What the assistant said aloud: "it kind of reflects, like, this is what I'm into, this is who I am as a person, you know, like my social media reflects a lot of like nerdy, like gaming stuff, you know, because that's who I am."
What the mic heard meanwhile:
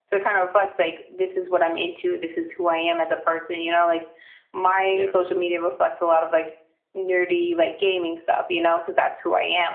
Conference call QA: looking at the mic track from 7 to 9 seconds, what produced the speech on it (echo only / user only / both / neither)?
echo only